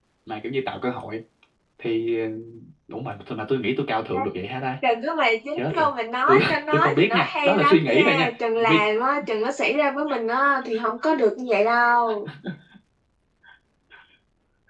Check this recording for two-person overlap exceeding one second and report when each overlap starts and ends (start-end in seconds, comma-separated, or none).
6.3-8.3